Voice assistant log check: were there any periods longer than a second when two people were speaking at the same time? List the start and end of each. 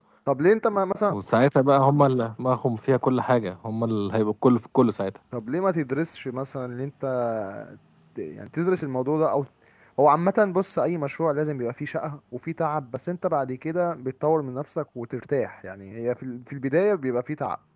none

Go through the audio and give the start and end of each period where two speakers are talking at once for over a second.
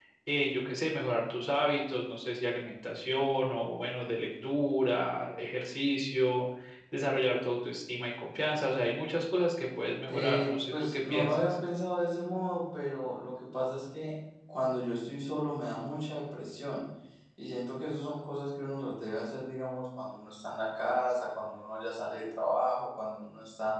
10.0-11.4

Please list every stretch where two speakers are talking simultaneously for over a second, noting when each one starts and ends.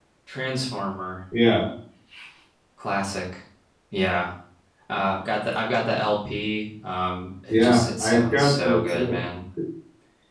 7.5-9.2

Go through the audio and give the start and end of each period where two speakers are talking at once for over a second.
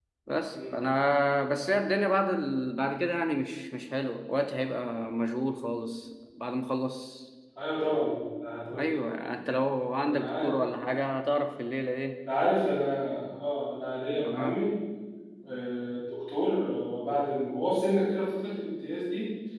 none

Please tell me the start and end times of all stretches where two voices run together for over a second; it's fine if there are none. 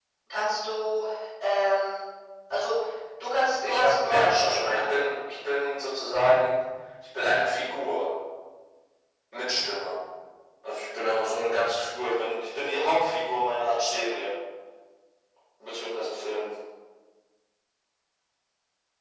3.6-4.8

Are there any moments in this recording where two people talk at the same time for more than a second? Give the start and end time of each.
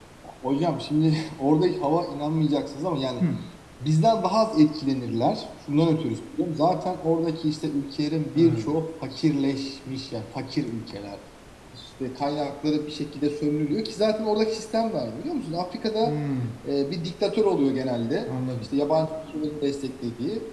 none

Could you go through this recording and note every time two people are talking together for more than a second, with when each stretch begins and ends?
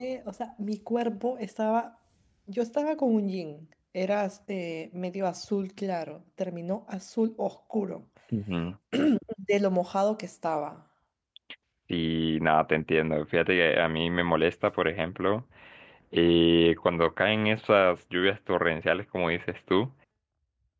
none

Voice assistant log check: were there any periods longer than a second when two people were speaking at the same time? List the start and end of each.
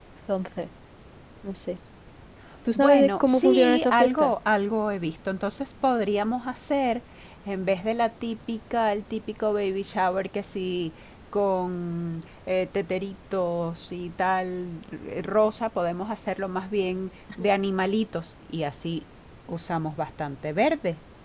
2.8-4.3

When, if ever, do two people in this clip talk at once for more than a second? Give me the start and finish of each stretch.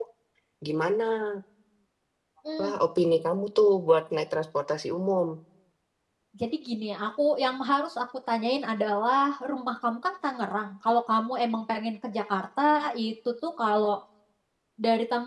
none

